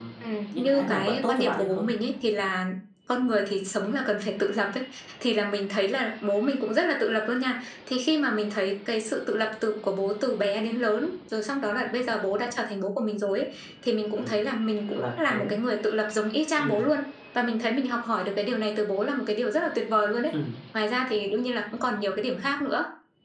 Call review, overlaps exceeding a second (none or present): present